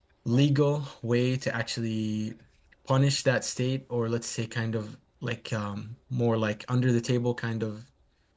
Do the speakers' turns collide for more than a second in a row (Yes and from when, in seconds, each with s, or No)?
No